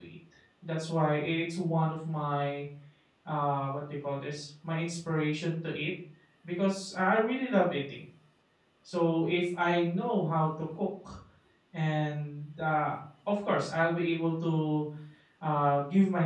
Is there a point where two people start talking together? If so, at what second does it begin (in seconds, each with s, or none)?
none